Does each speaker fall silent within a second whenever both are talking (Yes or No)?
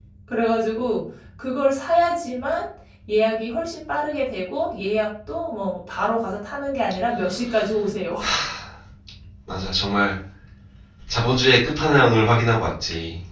Yes